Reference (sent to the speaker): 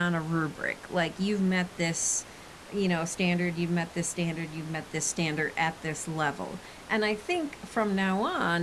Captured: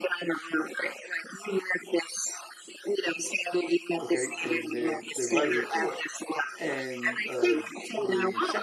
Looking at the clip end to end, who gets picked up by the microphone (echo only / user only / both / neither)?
both